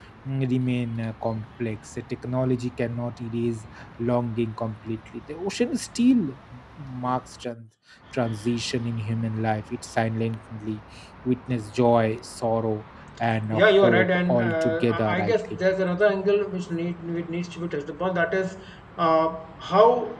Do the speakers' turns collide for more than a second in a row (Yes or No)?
Yes